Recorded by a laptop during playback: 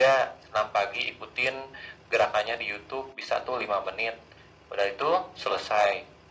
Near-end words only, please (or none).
none